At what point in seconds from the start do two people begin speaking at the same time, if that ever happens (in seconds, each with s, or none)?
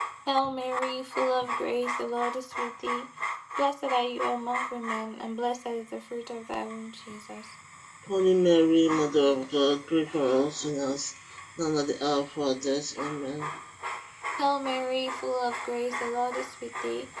none